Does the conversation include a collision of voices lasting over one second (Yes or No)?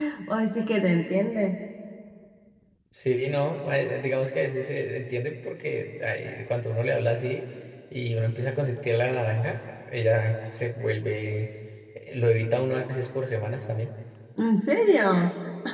No